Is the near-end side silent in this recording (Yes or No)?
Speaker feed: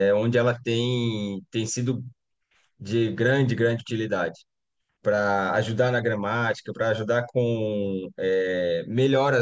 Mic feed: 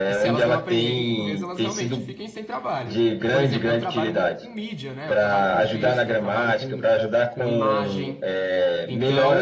No